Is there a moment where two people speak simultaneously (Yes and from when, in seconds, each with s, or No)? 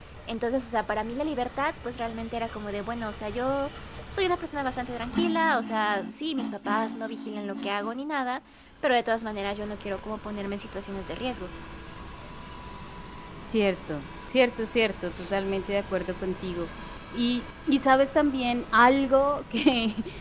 No